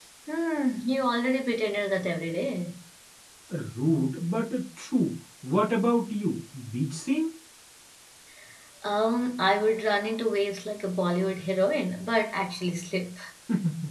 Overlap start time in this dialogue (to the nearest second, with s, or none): none